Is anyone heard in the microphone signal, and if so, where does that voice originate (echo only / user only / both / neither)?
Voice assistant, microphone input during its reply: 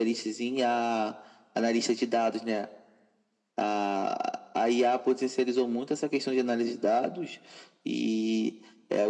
echo only